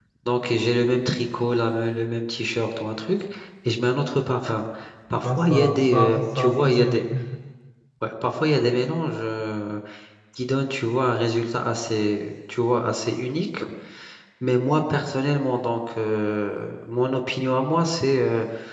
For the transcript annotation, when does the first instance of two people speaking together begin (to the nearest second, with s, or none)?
5 s